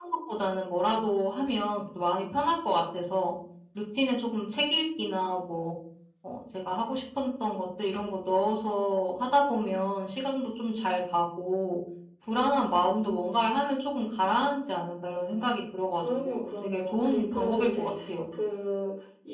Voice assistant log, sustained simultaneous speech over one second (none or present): present